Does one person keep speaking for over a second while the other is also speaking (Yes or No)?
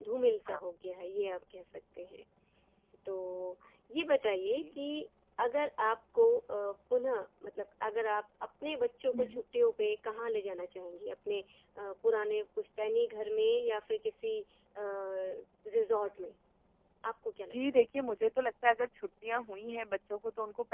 No